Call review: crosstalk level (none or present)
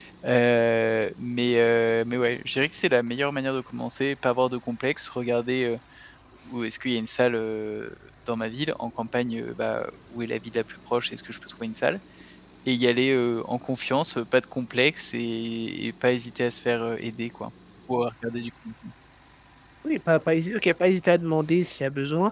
none